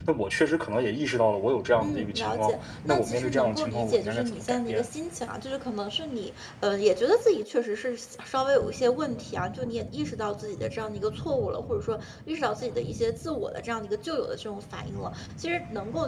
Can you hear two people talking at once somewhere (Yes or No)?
Yes